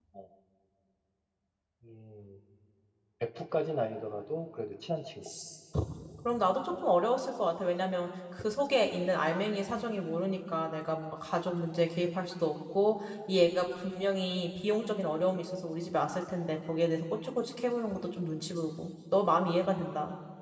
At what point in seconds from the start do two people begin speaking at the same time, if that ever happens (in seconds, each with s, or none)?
none